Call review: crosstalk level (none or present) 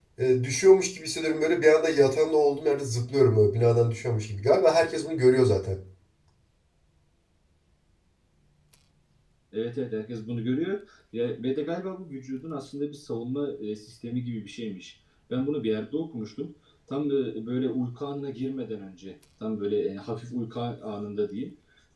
none